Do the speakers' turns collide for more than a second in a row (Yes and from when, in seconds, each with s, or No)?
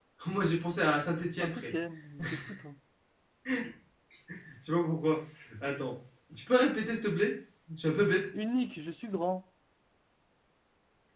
No